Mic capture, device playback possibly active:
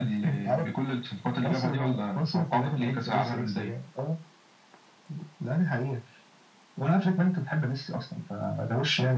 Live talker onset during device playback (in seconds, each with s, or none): none